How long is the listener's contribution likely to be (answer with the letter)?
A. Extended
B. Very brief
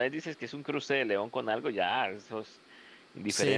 A